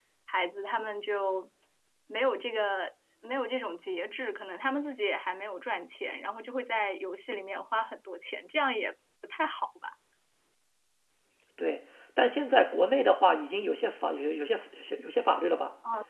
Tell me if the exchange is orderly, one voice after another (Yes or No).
Yes